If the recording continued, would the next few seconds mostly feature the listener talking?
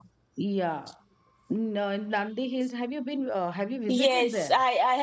Yes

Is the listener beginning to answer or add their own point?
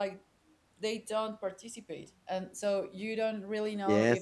Yes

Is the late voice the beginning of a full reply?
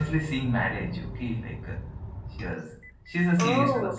No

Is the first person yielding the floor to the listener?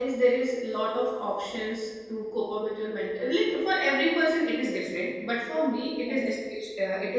No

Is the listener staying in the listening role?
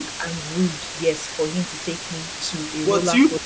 No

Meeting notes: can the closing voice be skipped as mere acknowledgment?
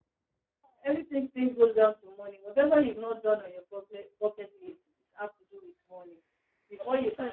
Yes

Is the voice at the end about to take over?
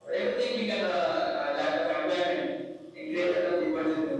No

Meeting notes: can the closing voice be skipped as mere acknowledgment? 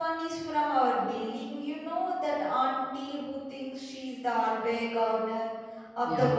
No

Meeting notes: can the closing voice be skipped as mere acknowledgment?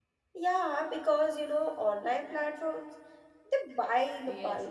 No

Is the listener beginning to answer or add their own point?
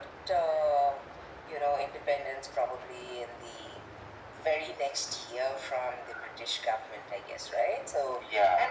No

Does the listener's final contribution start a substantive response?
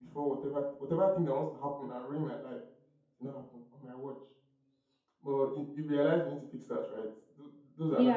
Yes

